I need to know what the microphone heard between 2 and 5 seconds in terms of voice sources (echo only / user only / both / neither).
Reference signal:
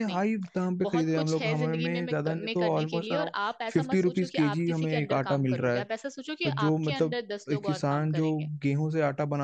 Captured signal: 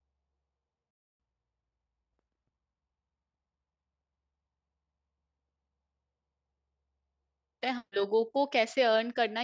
neither